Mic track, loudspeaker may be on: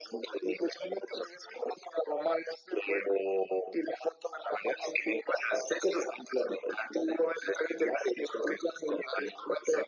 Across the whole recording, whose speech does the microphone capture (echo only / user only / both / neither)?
echo only